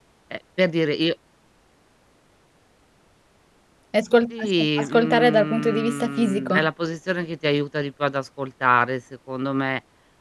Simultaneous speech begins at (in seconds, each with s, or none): 4.4 s